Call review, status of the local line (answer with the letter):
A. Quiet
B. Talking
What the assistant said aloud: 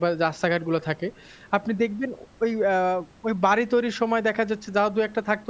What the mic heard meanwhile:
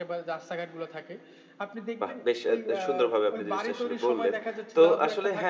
B